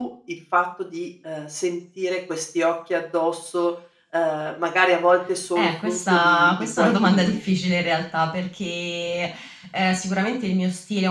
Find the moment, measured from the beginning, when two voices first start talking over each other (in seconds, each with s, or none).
5.5 s